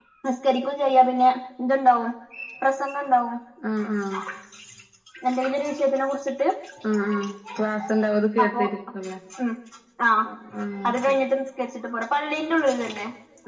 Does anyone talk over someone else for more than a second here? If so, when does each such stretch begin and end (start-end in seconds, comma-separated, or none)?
none